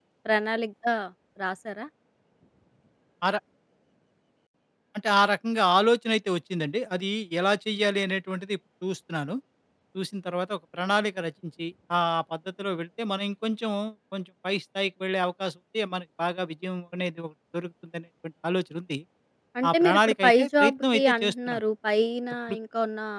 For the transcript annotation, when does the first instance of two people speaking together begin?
19.7 s

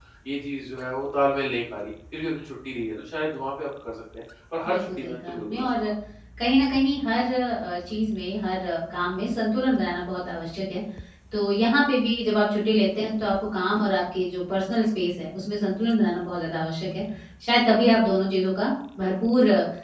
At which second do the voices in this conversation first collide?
4.7 s

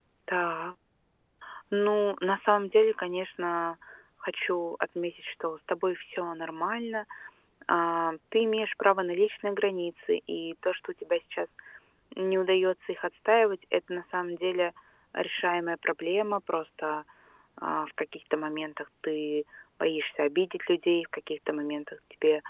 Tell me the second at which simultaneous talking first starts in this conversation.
none

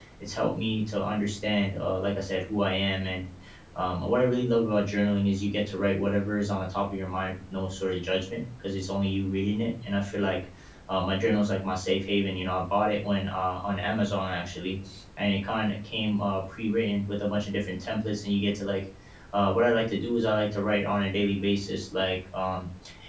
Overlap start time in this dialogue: none

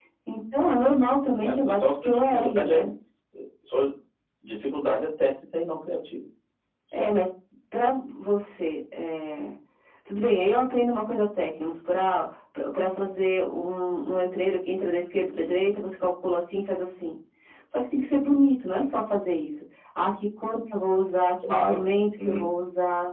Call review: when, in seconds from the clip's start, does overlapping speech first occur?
1.4 s

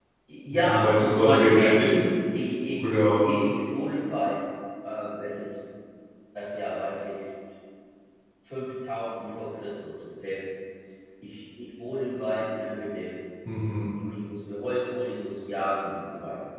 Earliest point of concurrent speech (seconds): 0.5 s

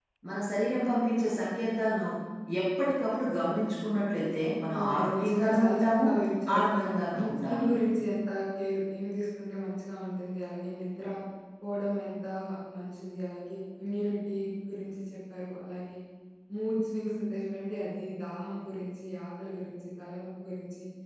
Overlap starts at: 4.8 s

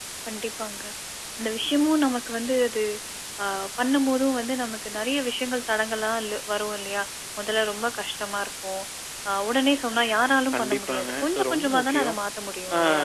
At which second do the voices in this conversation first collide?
10.5 s

